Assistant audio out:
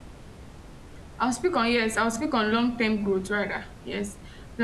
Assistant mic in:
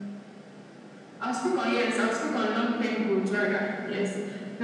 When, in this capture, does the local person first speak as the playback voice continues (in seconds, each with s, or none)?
none